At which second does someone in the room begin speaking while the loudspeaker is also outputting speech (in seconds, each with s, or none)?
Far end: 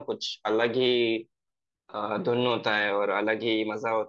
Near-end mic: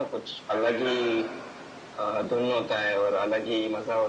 0.5 s